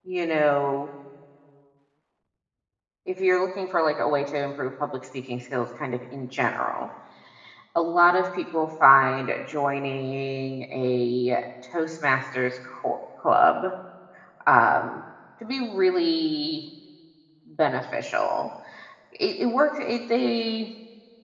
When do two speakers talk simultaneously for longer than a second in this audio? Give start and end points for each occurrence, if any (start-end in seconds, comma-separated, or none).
none